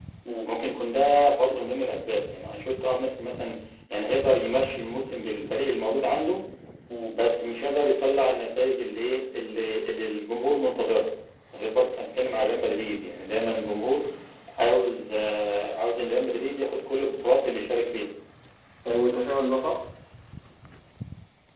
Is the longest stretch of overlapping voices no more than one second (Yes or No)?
Yes